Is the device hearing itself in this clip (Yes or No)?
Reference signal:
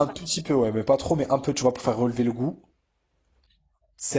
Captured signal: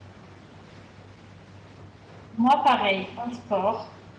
No